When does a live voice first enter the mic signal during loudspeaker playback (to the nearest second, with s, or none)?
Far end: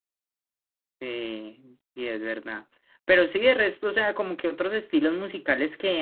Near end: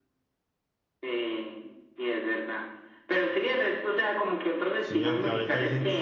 5 s